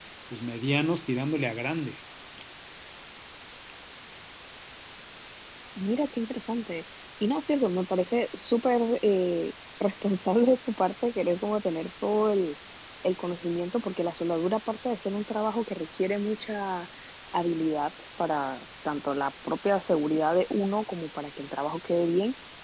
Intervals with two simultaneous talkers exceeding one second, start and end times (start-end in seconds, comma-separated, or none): none